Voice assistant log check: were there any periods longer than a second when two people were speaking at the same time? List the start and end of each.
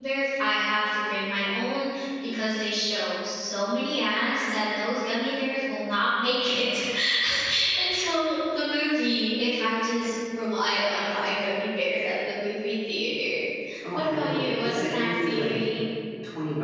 14.0-15.5

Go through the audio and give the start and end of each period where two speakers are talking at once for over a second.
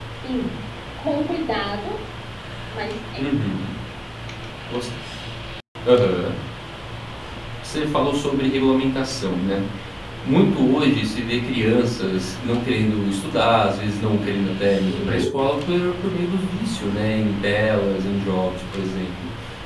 none

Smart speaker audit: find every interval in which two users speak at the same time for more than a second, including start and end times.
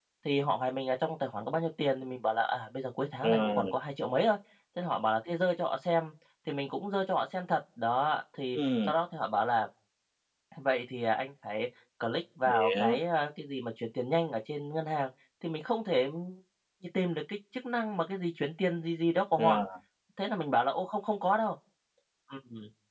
none

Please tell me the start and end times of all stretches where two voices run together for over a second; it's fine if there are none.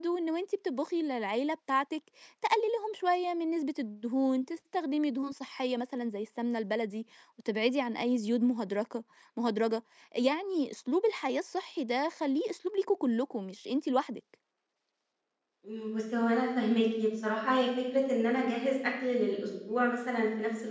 none

